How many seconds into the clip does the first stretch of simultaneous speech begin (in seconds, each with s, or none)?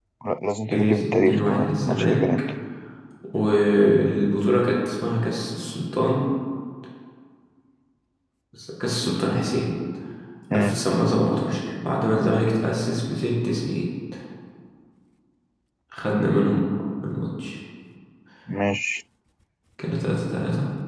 0.7 s